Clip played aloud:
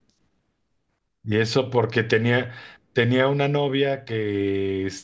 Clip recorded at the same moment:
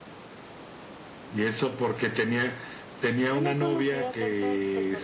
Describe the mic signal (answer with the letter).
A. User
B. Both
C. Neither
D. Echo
B